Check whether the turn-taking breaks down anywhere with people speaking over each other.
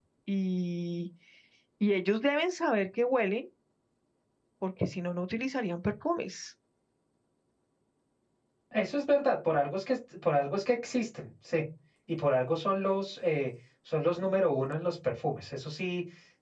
No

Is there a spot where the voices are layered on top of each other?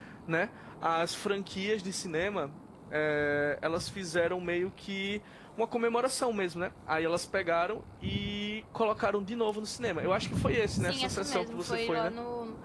Yes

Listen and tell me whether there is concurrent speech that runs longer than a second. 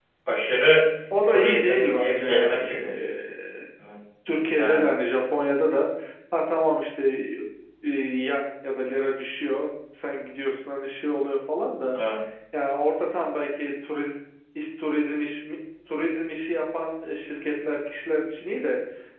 Yes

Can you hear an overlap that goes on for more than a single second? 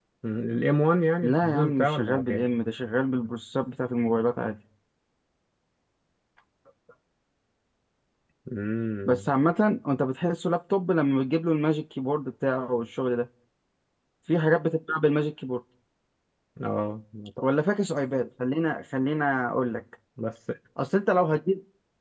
Yes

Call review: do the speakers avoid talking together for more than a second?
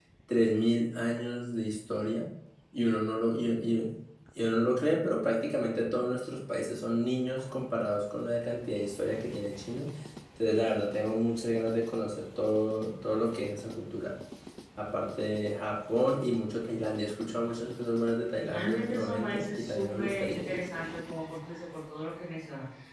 No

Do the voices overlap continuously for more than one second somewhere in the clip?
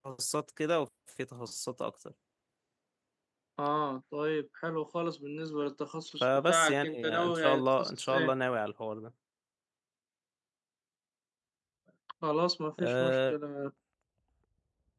Yes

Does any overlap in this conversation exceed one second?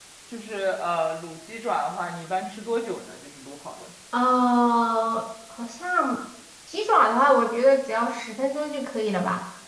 No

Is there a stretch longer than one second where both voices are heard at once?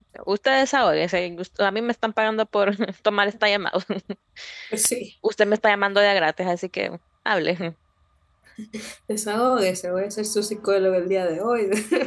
No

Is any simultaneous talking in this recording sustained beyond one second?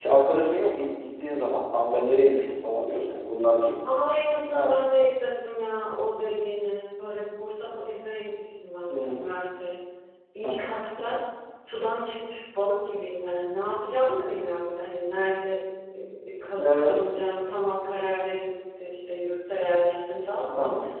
No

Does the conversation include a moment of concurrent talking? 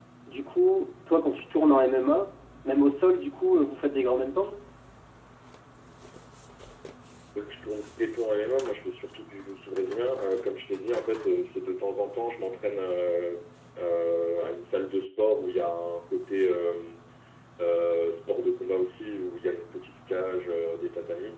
No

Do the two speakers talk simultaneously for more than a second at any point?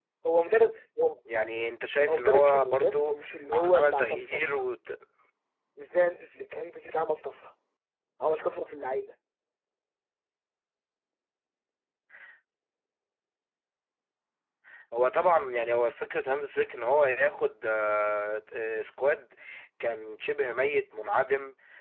Yes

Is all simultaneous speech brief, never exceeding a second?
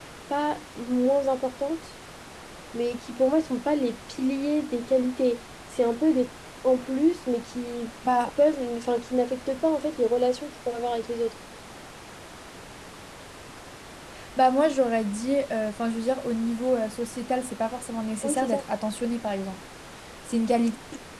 Yes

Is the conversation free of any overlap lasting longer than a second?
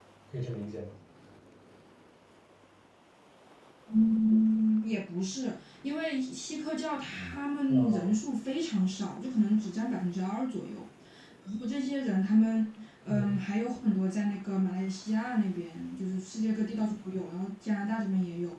Yes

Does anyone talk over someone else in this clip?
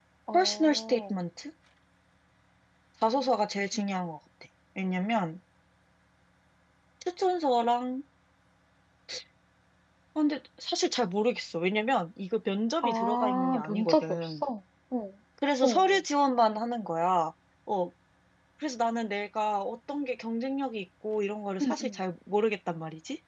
Yes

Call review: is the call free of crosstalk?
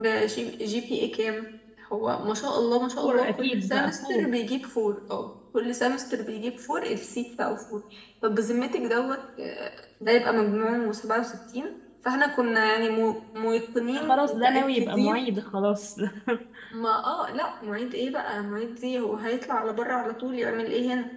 No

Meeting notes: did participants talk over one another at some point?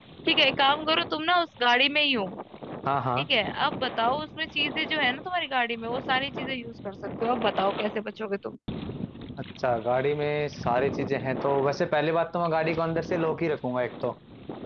No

